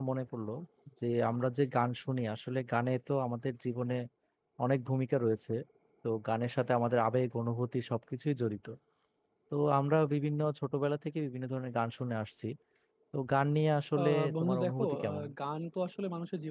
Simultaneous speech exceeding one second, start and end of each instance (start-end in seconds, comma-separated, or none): 14.0-15.2